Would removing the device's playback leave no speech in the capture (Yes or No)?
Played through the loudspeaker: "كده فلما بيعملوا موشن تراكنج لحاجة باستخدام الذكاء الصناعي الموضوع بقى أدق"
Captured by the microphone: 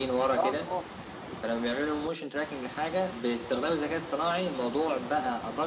No